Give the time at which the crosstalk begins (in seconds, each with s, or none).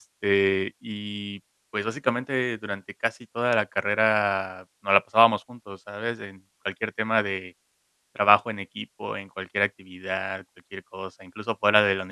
none